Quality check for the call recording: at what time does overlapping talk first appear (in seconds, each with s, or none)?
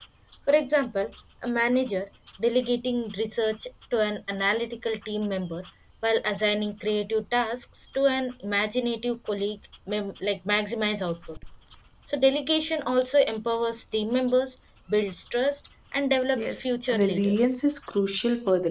16.3 s